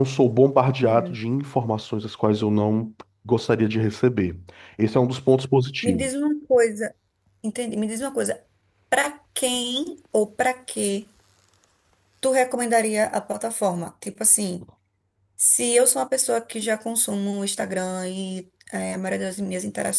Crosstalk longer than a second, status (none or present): none